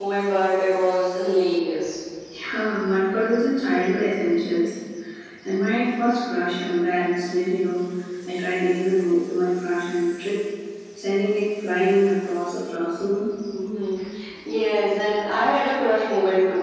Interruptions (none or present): none